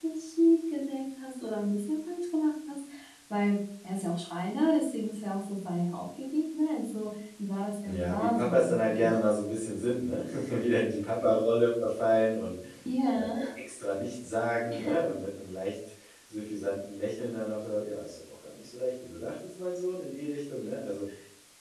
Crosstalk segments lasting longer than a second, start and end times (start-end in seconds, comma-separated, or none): 7.8-9.2